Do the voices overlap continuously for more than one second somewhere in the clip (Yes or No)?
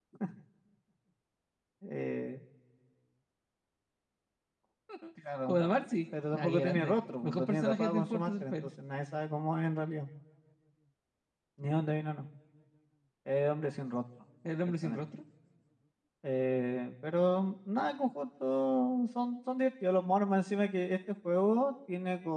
Yes